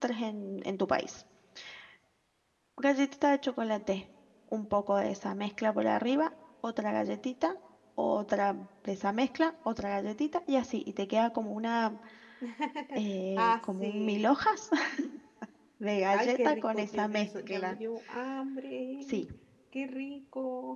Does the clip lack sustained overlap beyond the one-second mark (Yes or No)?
No